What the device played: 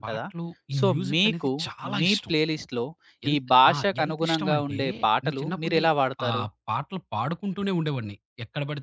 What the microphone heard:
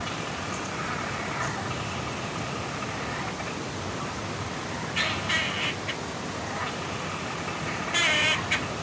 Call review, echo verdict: none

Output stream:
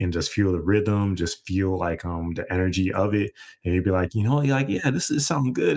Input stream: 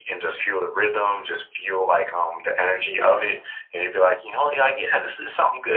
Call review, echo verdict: present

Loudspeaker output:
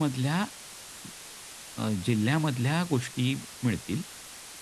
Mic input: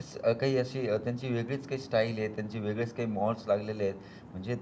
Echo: none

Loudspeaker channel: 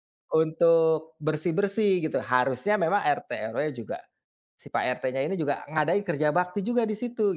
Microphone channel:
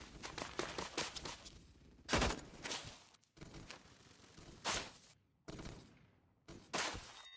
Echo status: none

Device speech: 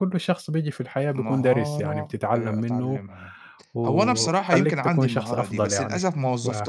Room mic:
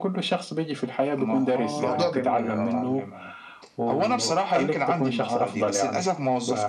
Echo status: present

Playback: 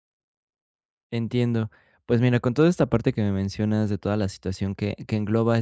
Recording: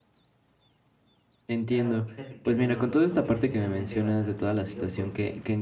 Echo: present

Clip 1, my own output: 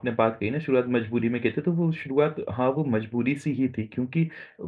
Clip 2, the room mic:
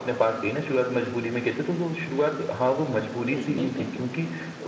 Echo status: present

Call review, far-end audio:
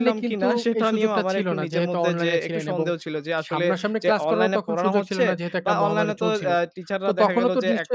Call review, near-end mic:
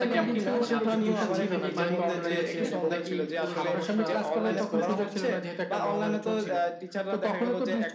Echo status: present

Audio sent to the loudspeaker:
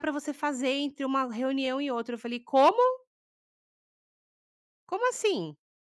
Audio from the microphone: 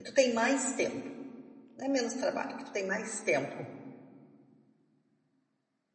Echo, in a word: none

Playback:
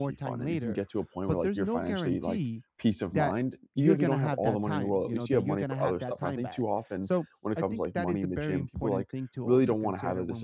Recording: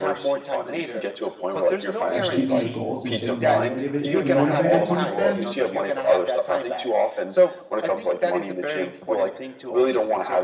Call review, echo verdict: present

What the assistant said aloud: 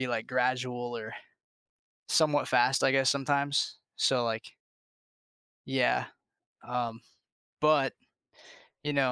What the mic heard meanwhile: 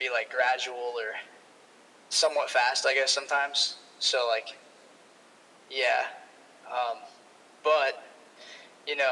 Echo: present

